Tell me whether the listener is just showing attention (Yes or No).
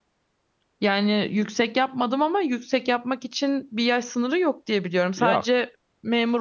Yes